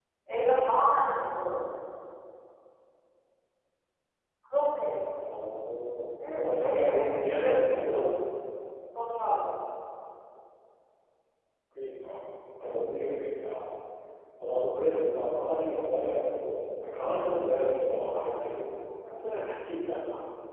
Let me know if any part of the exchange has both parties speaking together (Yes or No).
Yes